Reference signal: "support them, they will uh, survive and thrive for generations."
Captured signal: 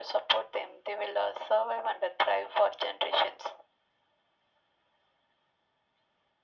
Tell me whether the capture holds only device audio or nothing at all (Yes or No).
Yes